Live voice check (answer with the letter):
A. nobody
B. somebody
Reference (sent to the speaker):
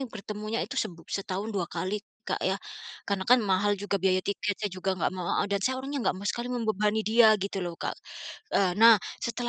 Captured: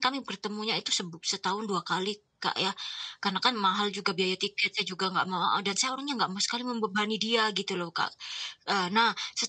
A